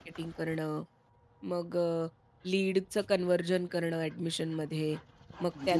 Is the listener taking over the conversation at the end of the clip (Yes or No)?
No